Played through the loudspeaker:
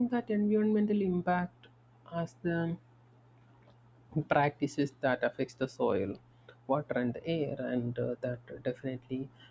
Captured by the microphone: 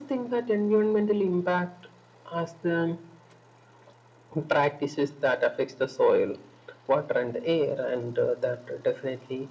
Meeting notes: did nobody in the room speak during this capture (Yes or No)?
Yes